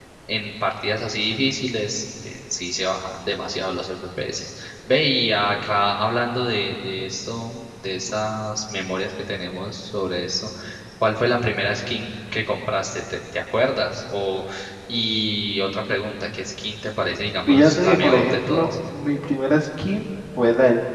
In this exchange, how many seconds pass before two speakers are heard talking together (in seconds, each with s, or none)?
17.5 s